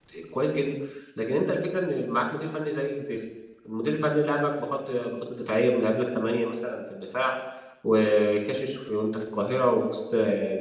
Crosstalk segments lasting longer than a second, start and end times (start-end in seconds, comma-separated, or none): none